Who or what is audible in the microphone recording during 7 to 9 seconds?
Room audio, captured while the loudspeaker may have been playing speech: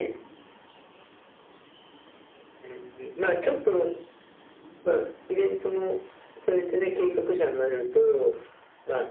echo only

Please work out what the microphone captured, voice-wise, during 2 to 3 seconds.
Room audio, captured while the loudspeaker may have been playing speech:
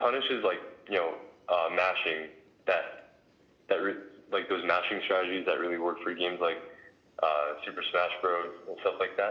echo only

